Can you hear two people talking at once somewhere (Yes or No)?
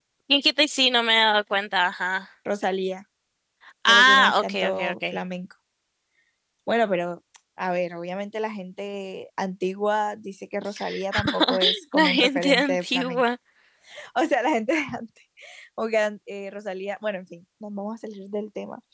Yes